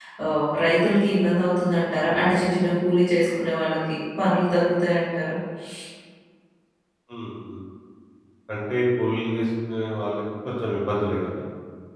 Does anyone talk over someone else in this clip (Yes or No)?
No